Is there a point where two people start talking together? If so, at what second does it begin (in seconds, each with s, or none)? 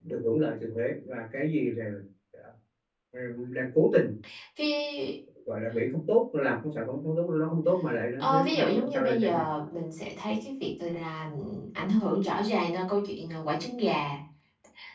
8.2 s